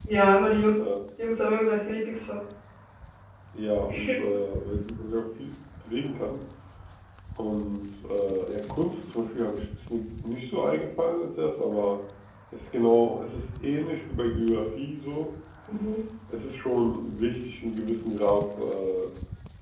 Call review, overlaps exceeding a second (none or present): none